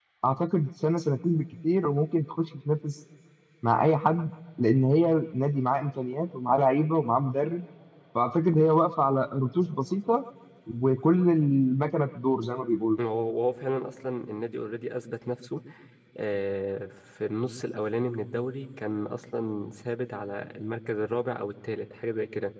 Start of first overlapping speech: none

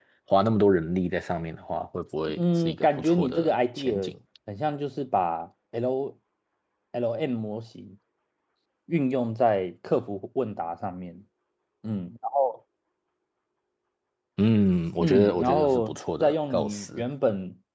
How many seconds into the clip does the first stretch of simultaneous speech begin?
2 s

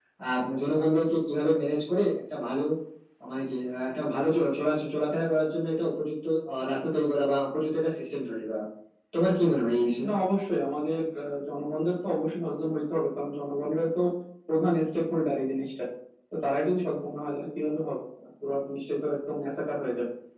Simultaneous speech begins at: none

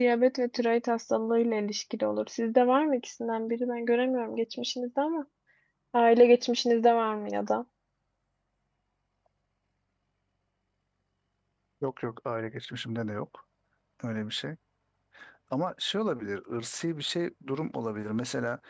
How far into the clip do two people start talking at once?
none

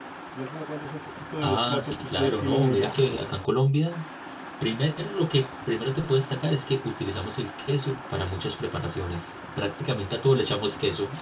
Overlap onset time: 1 s

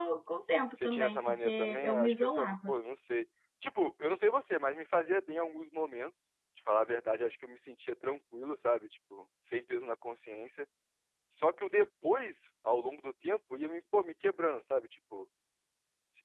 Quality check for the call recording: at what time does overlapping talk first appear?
1 s

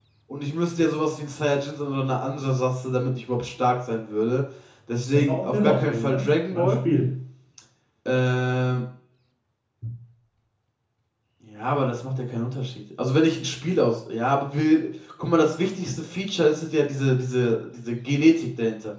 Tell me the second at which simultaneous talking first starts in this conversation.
5 s

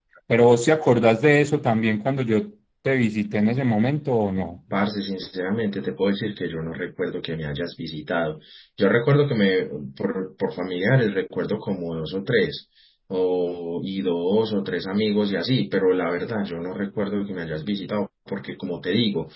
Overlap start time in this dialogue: none

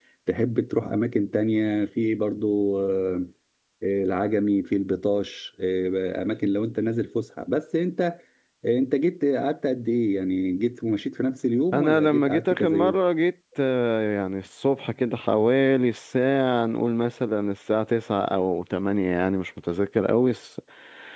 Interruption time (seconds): 12 s

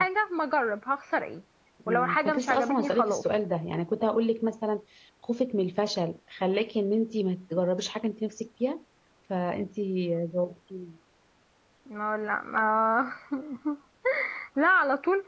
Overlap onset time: 2 s

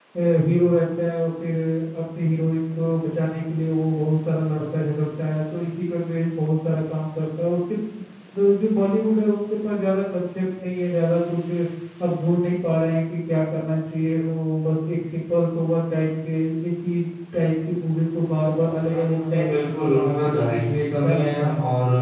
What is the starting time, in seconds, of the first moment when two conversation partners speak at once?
19 s

